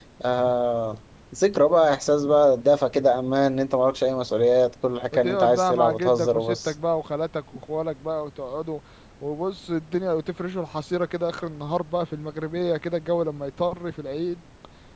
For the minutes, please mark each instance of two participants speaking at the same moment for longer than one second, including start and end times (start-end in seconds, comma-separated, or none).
5.1-6.7